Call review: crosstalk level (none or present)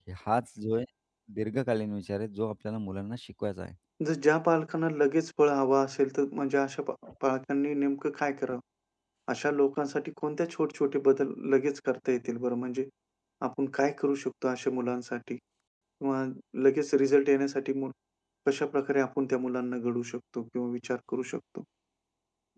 none